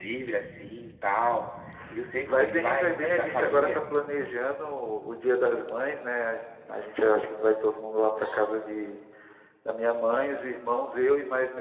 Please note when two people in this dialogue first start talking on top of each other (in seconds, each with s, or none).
2.2 s